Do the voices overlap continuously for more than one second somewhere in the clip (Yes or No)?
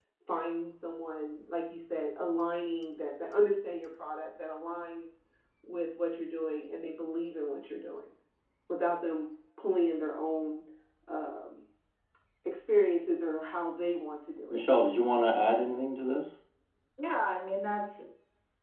No